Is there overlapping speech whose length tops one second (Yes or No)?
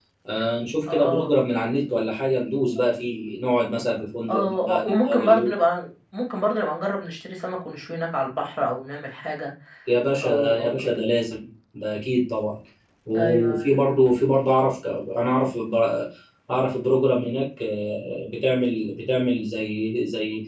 Yes